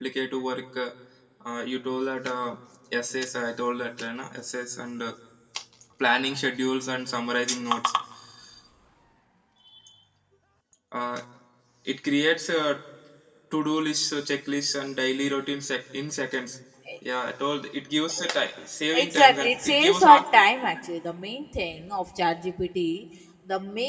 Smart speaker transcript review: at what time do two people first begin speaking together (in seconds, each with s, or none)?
18.9 s